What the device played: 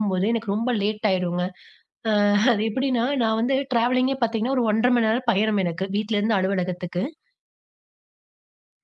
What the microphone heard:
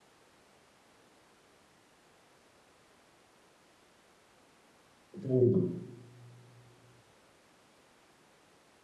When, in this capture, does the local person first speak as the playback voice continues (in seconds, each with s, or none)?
5.2 s